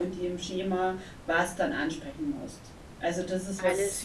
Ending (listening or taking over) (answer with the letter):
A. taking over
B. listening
B